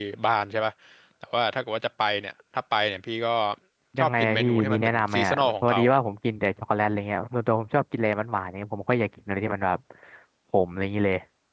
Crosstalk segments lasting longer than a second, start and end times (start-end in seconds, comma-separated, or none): 4.0-5.8